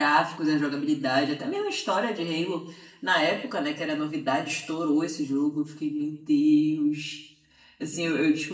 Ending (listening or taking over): listening